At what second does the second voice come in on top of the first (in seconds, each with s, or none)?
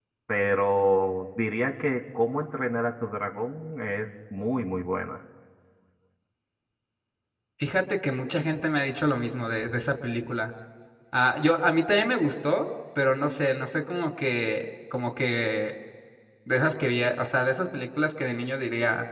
none